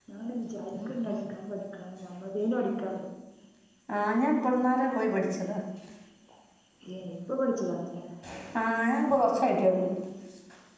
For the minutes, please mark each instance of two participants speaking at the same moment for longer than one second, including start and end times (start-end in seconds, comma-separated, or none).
none